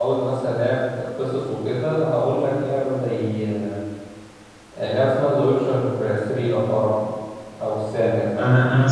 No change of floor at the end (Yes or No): No